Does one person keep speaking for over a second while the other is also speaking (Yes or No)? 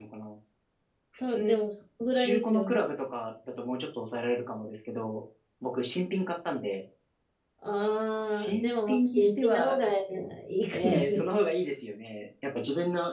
Yes